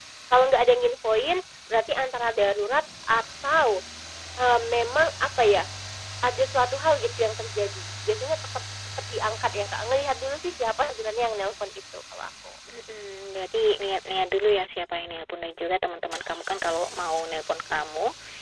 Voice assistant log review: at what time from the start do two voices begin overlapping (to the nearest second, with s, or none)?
none